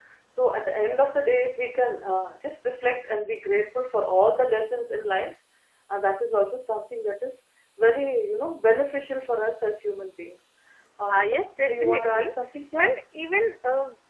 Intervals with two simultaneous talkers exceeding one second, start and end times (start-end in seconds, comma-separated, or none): 11.1-12.3